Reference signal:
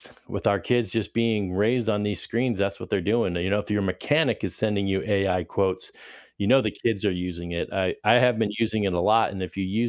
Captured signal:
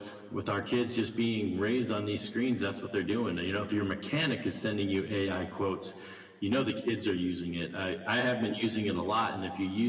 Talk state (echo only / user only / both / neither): echo only